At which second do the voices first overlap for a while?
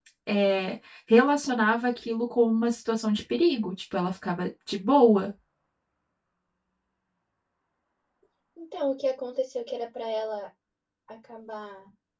none

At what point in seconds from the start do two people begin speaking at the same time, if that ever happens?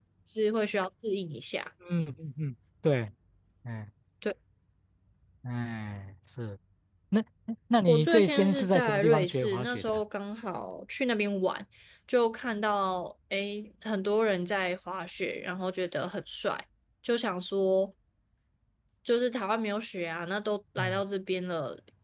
7.9 s

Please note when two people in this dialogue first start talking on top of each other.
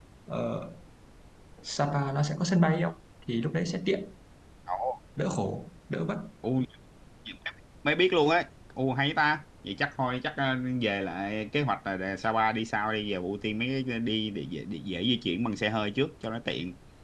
none

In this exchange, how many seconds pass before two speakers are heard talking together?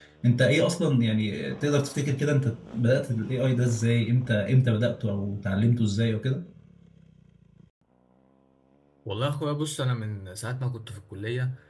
none

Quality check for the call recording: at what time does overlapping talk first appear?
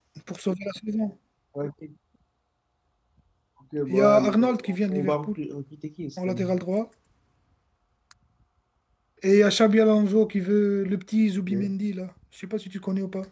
3.9 s

